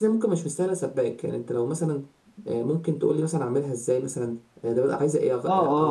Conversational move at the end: taking over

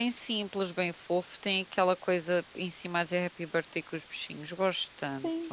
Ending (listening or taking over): taking over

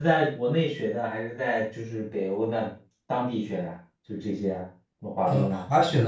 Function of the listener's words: taking over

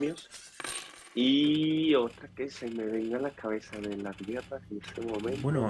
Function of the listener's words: taking over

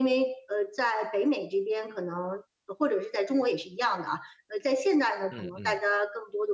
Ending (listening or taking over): listening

